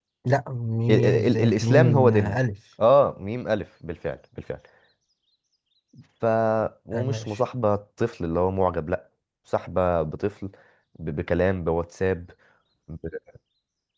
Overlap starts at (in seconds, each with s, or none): 0.9 s